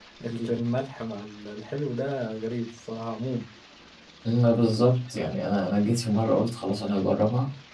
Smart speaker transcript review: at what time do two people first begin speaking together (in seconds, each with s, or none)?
none